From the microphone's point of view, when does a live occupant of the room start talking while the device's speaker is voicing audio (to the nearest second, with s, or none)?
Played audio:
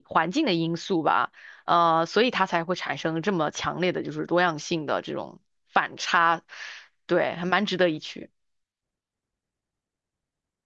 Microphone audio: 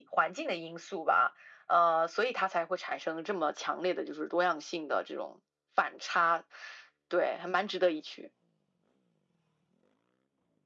none